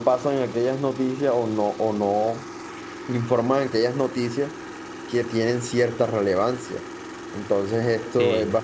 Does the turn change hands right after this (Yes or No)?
No